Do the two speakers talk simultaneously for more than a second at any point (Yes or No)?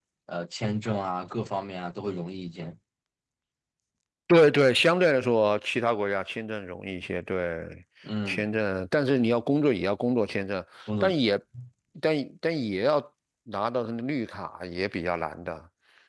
No